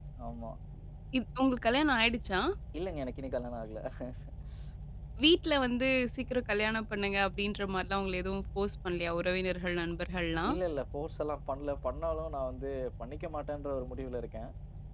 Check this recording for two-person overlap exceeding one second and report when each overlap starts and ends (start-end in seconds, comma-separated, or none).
none